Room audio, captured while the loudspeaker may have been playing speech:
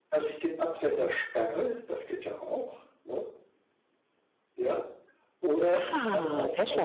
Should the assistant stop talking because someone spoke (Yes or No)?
Yes